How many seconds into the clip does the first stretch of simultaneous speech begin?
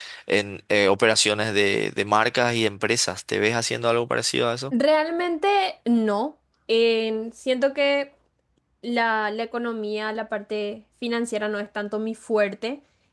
none

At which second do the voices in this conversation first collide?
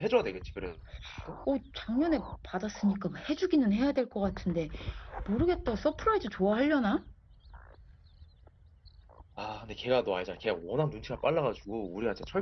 none

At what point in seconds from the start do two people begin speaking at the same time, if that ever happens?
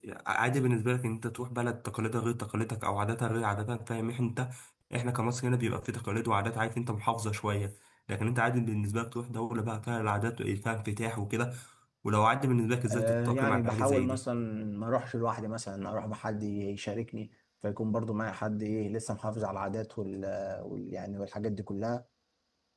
12.9 s

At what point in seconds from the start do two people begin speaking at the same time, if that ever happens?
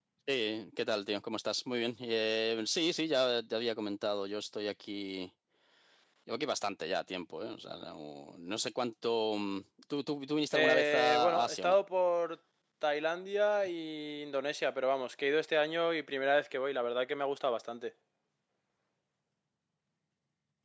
10.5 s

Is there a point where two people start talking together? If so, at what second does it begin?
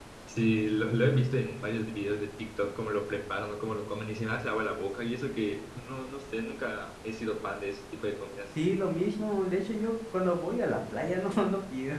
none

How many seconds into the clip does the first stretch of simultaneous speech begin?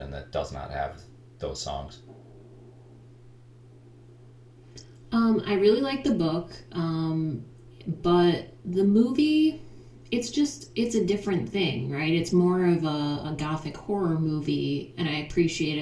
none

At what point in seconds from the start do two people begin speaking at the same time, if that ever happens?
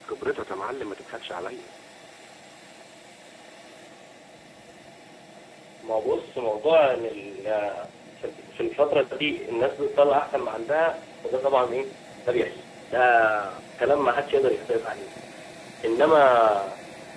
none

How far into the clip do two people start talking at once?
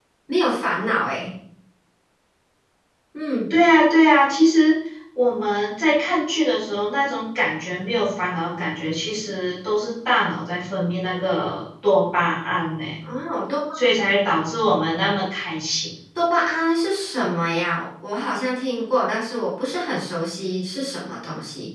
none

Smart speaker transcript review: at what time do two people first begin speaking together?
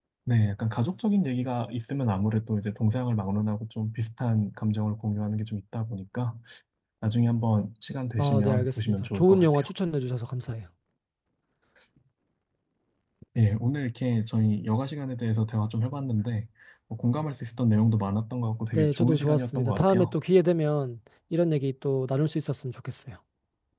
8.2 s

